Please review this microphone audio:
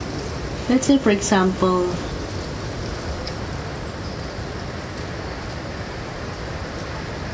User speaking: Yes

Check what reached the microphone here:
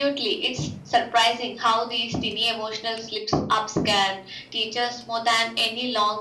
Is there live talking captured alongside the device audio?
No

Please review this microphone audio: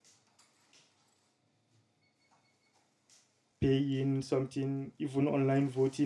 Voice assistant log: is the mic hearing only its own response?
No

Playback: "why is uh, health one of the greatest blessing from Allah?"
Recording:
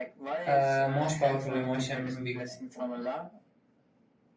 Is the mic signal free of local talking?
No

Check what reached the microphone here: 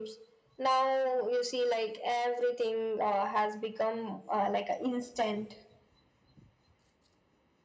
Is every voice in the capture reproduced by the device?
Yes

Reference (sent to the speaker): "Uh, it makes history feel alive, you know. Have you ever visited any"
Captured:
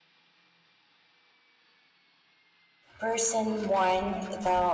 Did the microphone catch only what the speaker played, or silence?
No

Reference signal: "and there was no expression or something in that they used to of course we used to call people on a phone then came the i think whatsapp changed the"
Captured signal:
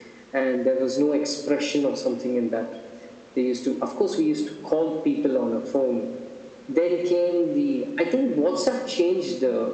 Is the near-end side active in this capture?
No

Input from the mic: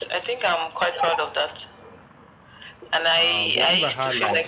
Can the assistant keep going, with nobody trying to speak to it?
No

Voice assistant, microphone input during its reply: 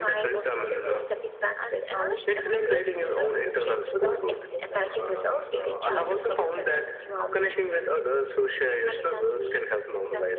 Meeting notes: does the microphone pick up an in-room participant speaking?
Yes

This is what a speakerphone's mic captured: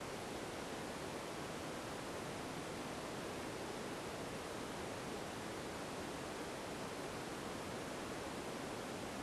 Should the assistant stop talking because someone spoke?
No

